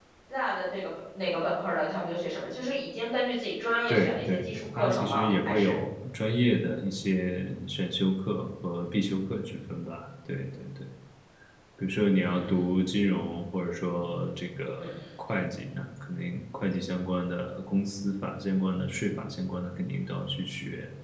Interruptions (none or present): present